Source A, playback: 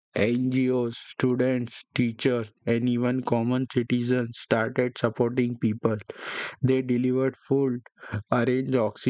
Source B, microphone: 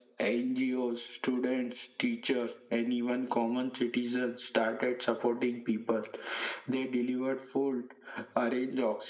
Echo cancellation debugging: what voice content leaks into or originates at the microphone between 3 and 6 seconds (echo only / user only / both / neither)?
echo only